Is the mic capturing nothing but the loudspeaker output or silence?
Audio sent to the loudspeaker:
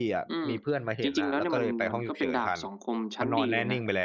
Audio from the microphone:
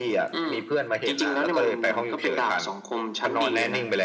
Yes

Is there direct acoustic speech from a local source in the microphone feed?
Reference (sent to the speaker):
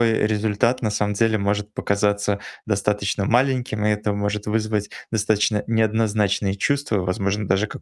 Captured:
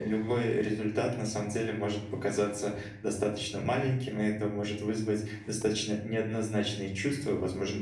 No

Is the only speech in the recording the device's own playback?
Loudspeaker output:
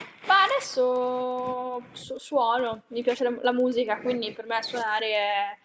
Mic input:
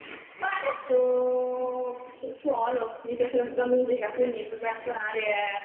Yes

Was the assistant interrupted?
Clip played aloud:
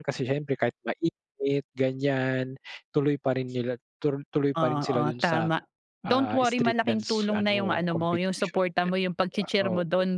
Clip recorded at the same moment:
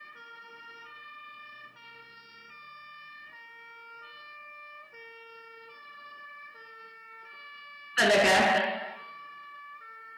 Yes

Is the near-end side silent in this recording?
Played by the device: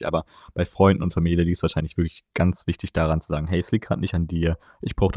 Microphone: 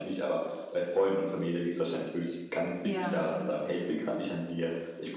No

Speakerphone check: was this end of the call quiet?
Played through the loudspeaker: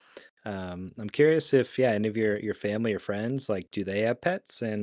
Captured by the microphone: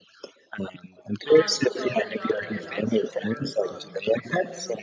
No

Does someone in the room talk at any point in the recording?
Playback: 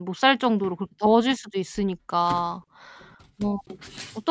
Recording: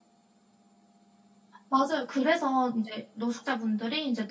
Yes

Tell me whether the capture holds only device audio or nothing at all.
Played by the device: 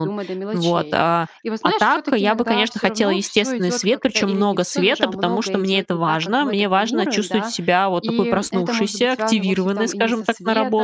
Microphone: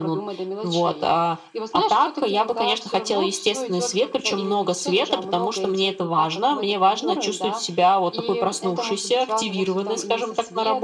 Yes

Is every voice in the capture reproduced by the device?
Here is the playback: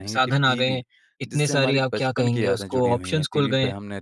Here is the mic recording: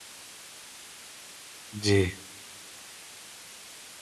No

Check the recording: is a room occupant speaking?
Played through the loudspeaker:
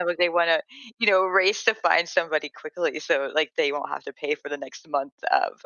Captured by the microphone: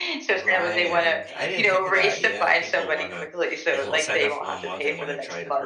Yes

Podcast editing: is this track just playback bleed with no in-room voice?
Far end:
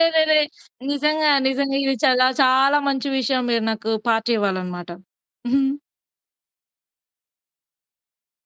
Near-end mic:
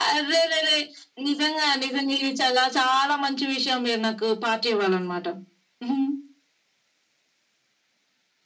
Yes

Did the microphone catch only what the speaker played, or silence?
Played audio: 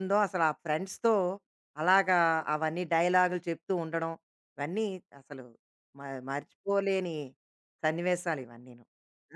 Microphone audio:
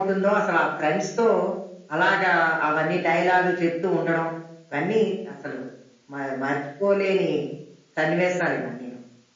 Yes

